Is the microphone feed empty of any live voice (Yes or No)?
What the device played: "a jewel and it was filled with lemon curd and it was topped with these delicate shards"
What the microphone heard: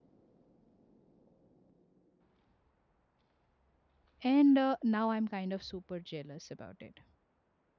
No